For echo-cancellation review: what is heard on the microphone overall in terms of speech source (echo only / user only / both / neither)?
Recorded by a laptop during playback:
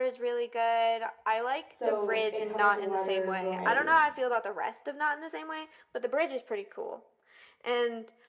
both